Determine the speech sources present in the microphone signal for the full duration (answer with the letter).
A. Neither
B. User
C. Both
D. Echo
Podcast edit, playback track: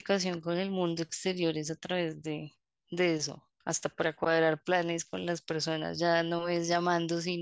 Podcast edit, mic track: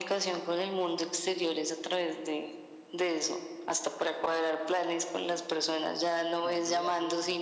C